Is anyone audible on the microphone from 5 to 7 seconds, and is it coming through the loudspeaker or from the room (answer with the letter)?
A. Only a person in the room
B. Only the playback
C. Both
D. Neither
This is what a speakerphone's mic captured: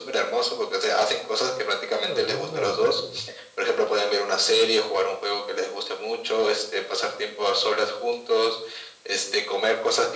B